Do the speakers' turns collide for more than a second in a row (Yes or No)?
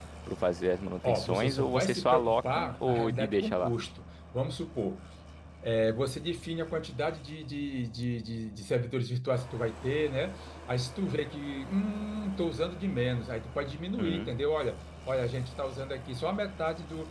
Yes